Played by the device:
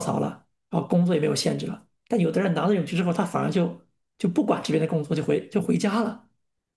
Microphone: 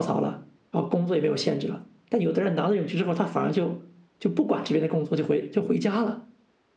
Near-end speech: none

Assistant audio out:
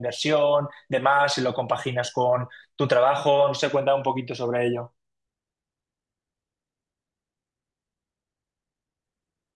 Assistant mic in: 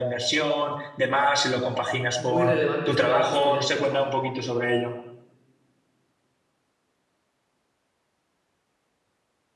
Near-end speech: present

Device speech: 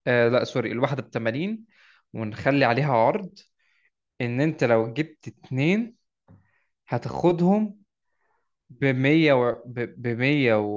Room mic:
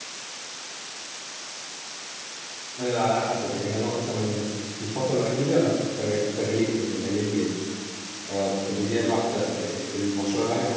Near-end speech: present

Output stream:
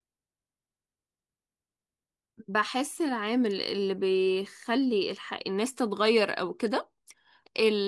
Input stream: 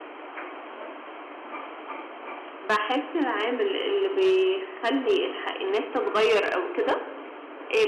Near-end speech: none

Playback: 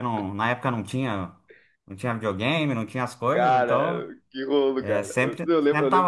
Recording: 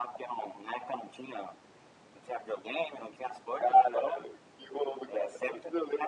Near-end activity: none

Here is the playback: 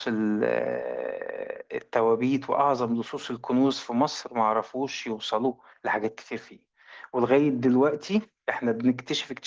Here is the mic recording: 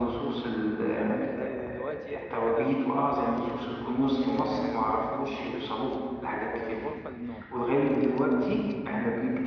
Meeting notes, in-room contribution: present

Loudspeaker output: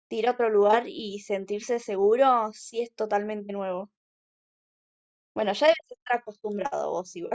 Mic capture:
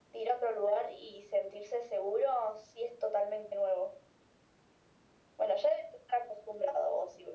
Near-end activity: none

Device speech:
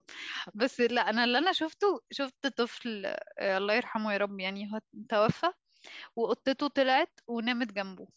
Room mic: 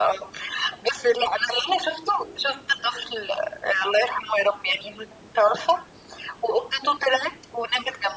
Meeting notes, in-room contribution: none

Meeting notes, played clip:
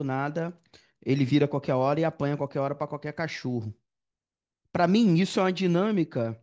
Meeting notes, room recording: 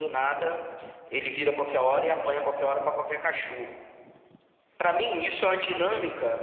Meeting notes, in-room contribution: none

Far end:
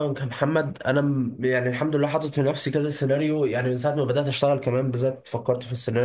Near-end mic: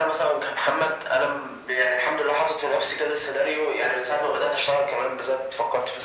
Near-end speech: none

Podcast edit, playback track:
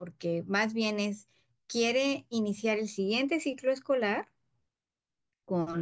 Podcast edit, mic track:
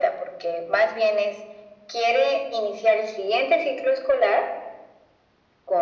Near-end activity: none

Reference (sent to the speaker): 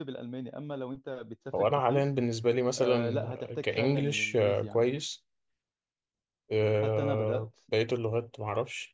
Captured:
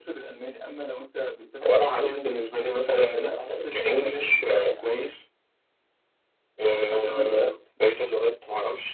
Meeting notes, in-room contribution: none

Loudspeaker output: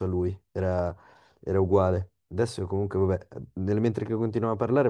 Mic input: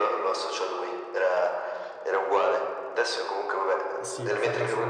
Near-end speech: present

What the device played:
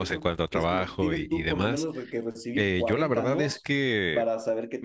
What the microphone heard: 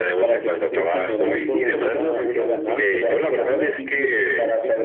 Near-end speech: present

